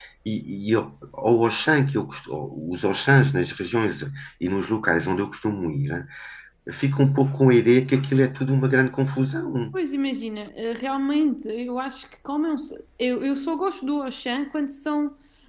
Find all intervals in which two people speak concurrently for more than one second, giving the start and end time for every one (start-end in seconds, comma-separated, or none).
none